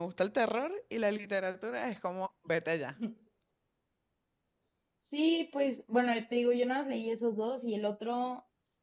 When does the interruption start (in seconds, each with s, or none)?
none